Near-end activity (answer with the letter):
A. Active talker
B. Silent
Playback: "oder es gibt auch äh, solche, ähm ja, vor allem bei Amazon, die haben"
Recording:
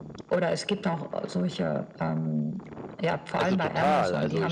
A